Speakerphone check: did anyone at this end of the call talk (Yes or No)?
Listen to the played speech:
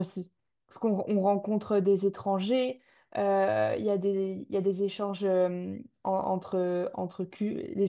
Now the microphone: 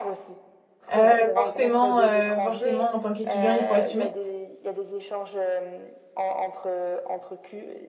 Yes